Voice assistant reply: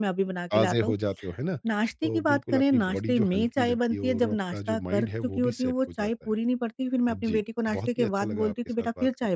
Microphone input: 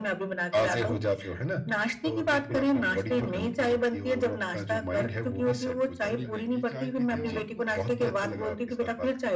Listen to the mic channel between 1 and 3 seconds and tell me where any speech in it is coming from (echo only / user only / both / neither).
echo only